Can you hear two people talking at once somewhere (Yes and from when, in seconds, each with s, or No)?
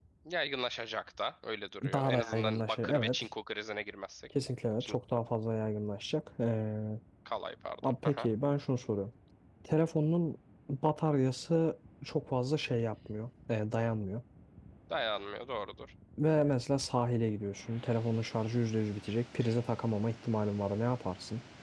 Yes, from 1.9 s